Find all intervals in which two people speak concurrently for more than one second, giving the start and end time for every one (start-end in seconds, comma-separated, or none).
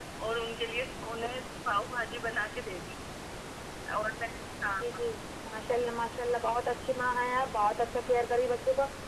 none